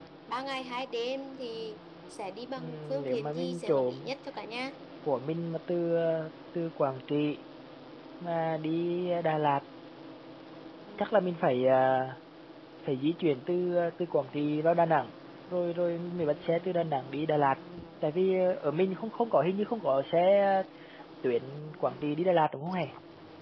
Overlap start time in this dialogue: 3 s

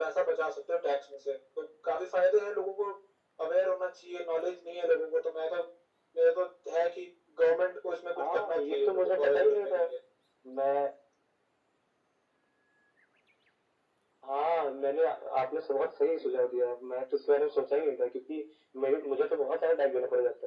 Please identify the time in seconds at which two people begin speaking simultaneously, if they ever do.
8 s

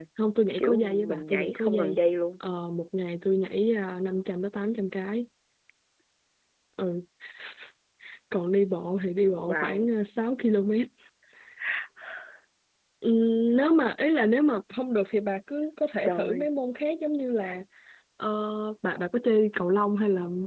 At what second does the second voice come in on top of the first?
1 s

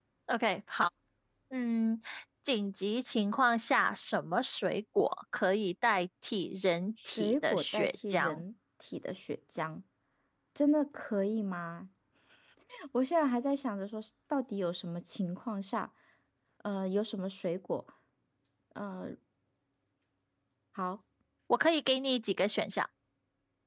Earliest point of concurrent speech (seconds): 7 s

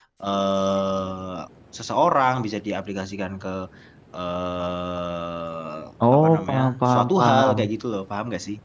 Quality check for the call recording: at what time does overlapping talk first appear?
6 s

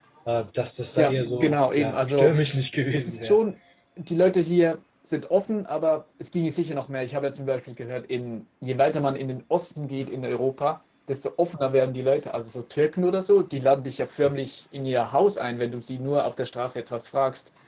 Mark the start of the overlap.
1 s

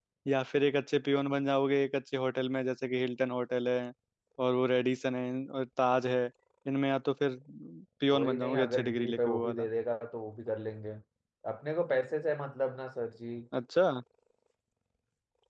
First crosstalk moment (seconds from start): 8 s

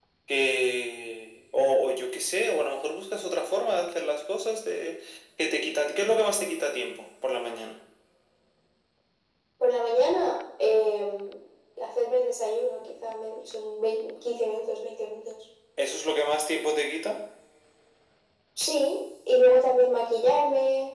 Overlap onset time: none

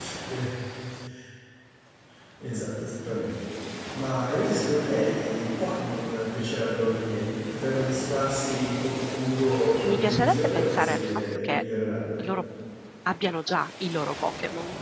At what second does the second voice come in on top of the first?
10 s

